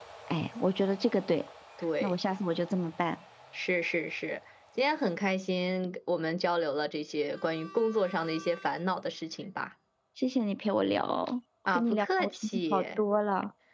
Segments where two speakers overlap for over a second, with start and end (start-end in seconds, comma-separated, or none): 11.7-13.0